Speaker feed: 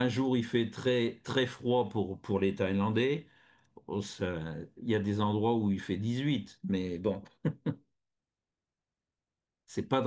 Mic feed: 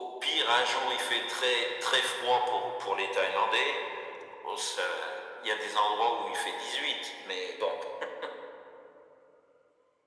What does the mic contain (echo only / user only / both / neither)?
echo only